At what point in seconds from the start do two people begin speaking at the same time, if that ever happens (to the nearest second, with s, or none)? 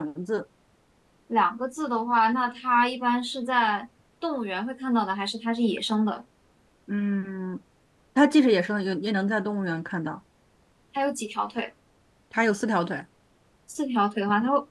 none